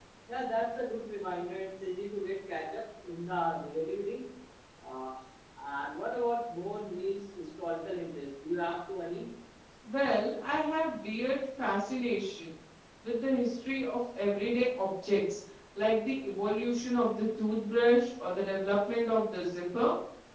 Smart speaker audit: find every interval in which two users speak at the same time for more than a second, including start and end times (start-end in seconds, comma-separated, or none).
none